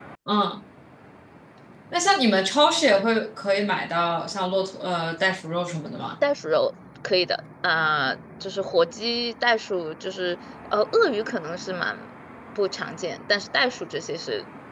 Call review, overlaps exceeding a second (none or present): none